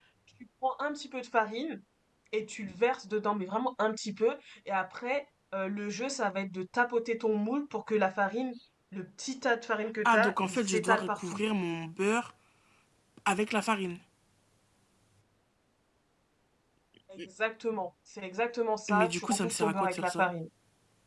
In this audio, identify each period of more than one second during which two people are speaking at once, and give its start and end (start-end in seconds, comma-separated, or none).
10.0-11.4, 18.9-20.3